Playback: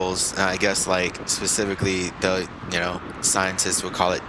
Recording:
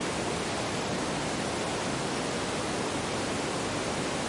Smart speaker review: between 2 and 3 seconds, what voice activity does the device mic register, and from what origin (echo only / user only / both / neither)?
neither